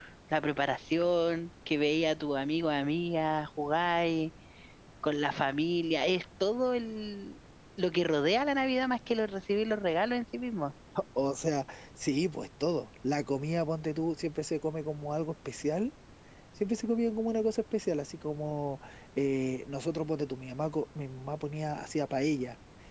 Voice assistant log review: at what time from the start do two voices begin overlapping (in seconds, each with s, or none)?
none